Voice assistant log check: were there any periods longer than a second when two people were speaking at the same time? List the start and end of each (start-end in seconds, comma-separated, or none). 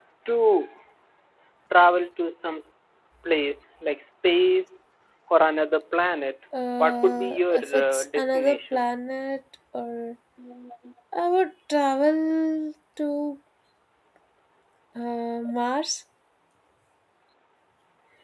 6.8-8.8